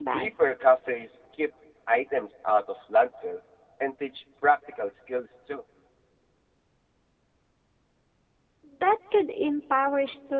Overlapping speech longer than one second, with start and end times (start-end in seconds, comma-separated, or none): none